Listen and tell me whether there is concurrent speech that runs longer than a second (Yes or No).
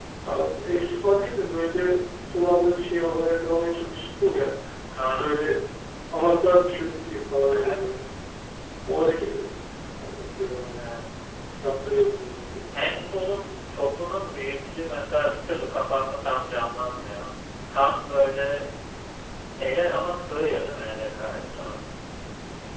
No